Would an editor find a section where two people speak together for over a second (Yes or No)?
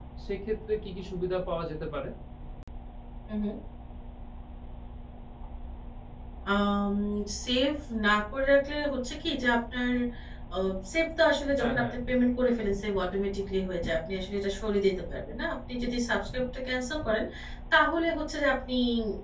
No